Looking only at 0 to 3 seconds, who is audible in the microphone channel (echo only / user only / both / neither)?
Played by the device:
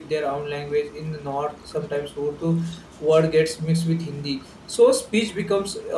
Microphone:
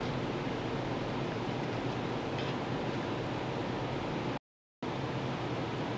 neither